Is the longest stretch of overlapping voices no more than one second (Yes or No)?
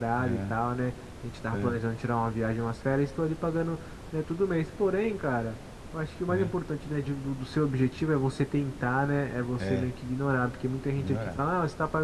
Yes